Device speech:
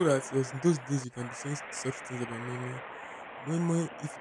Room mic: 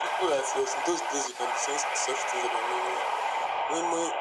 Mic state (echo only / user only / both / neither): echo only